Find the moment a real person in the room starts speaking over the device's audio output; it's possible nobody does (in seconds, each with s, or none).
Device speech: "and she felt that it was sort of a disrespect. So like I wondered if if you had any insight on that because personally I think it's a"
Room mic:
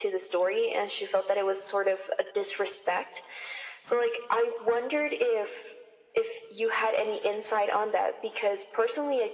none